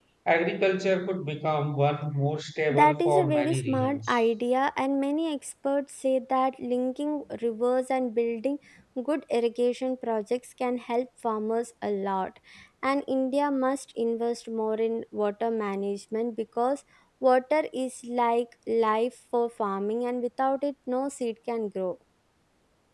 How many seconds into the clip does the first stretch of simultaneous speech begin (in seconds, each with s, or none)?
2.7 s